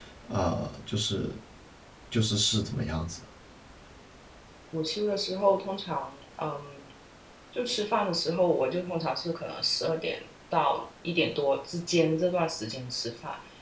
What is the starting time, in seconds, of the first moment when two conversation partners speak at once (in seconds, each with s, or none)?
none